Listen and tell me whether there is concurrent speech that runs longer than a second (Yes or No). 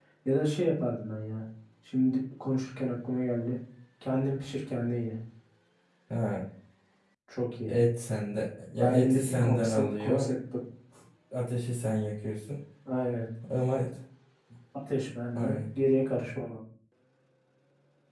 Yes